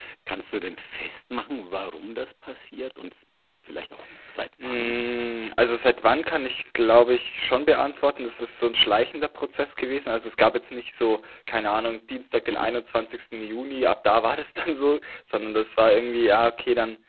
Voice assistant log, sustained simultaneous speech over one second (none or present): none